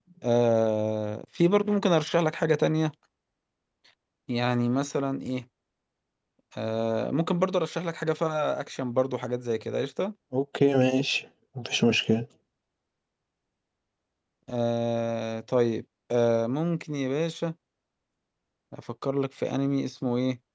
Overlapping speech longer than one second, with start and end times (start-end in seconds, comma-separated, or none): none